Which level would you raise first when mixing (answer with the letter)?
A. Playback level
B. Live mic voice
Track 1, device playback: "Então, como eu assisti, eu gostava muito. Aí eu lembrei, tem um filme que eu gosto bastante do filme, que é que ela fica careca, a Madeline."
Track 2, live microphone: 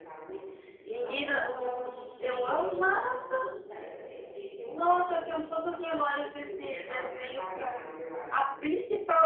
A